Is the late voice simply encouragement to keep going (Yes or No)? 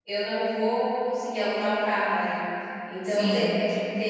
Yes